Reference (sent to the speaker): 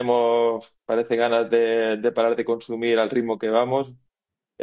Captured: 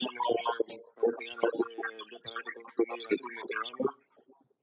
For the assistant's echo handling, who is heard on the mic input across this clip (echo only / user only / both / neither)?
echo only